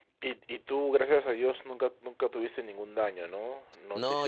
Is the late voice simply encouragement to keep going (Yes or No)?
No